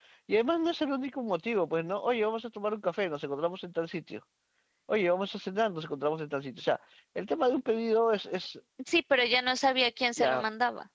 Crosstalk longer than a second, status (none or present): none